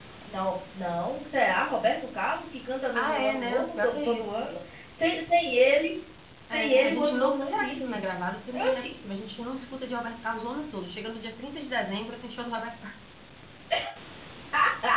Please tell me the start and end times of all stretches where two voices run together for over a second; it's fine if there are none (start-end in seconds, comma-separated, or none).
2.9-4.5, 6.5-8.0